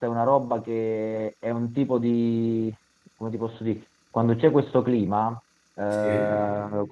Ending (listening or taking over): listening